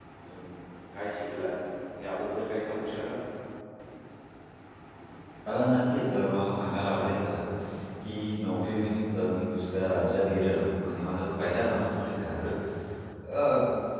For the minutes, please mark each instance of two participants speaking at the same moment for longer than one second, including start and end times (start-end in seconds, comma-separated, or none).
none